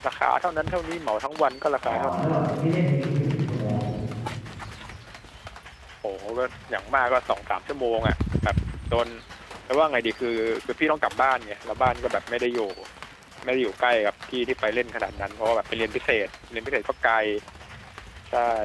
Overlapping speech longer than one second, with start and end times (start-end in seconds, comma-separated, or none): none